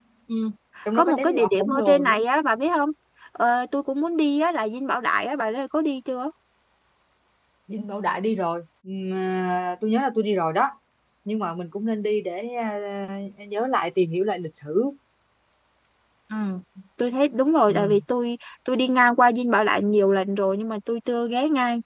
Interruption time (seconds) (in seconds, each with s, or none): 0.9 s